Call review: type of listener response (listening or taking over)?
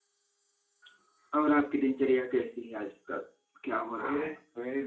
taking over